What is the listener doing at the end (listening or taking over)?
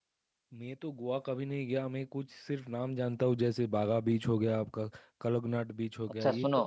taking over